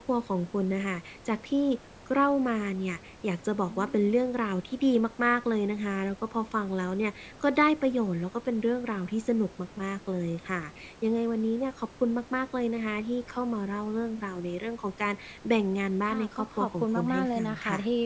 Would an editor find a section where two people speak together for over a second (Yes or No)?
Yes